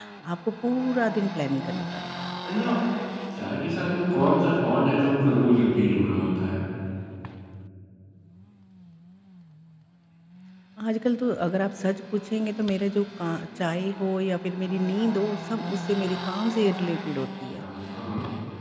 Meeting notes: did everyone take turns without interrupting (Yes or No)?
Yes